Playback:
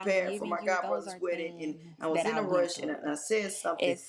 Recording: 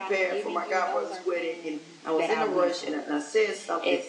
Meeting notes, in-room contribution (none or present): none